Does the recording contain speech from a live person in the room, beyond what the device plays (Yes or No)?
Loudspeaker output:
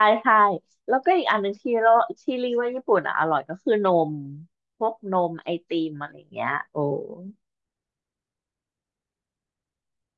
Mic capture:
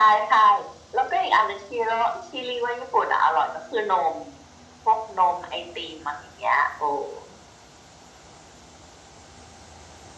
No